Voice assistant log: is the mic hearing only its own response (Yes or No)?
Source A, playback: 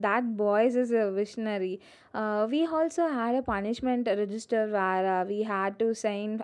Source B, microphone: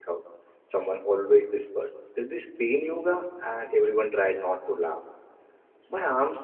No